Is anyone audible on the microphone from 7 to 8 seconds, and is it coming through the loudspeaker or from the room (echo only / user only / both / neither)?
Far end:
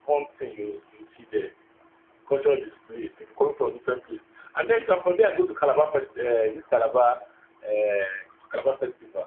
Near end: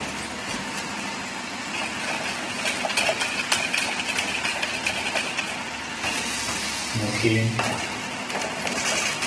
user only